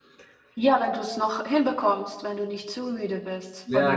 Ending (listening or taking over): taking over